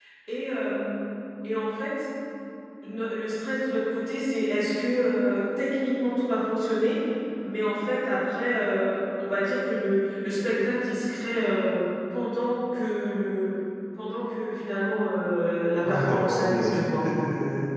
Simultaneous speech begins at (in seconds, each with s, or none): 15.8 s